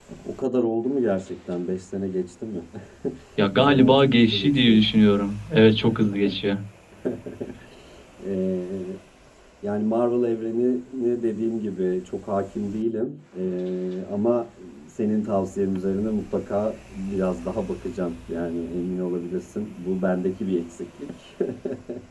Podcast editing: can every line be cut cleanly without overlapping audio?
No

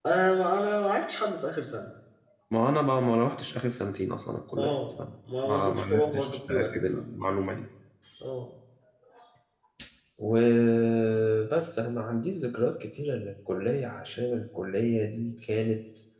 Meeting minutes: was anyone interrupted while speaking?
Yes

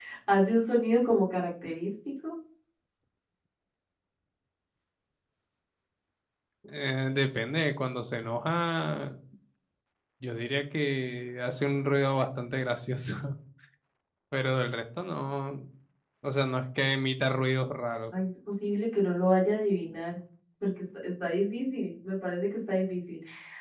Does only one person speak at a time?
Yes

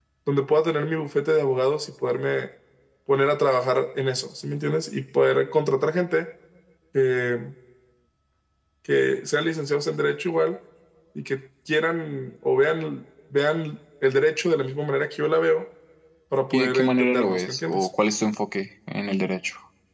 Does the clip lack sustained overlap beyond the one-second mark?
No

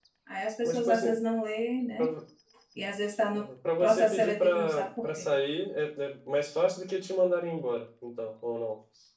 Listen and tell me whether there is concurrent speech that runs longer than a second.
Yes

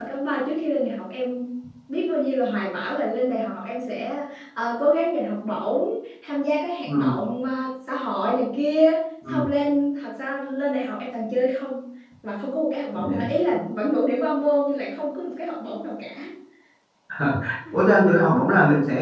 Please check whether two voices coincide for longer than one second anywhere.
No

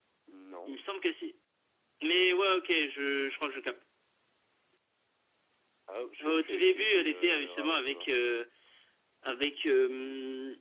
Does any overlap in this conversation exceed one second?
Yes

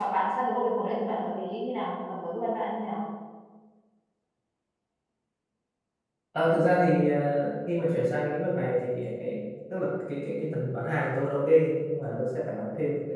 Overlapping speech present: No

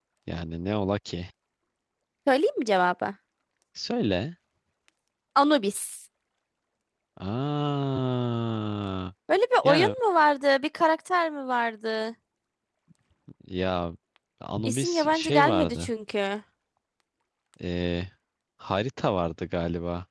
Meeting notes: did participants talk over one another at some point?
Yes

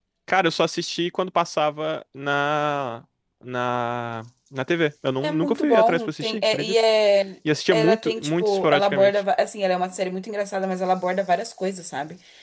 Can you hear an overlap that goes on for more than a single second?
Yes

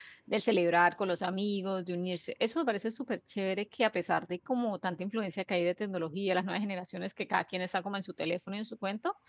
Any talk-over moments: No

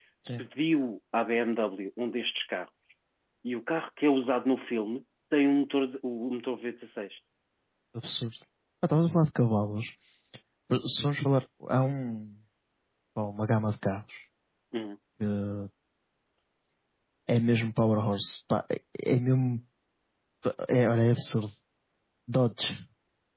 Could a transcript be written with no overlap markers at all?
Yes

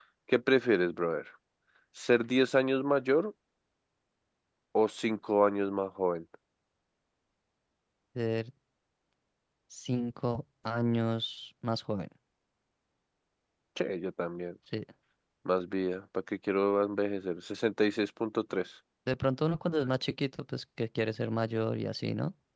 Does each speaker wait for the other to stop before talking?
Yes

